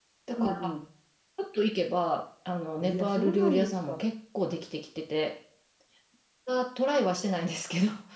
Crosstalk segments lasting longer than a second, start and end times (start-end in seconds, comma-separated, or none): 2.8-4.0